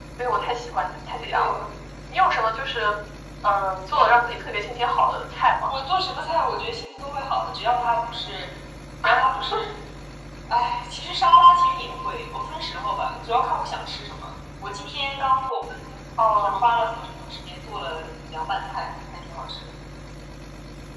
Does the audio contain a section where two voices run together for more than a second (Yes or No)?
No